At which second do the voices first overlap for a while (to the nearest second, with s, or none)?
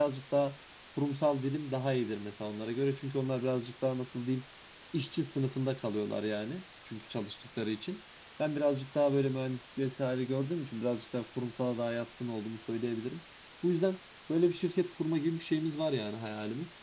none